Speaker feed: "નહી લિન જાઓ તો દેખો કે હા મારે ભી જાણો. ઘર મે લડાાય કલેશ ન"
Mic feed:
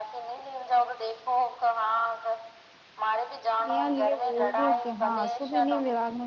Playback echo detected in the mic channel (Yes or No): Yes